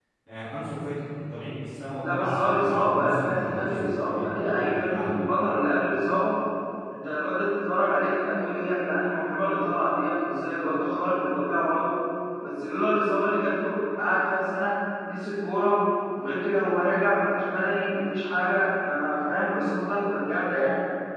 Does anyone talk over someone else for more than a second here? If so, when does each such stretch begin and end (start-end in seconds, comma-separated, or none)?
2.1-4.3